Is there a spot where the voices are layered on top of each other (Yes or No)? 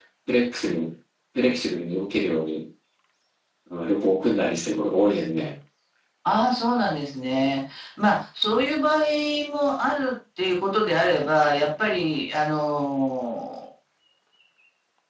No